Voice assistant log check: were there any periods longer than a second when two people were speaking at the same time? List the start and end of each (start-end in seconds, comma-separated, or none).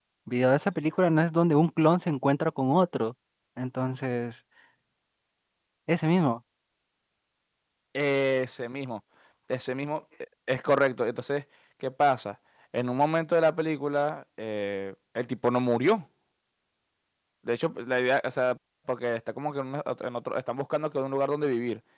none